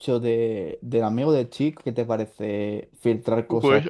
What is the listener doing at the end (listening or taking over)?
taking over